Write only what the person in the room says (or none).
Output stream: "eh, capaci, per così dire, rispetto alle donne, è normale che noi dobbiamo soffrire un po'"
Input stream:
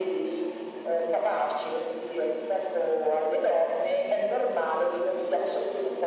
none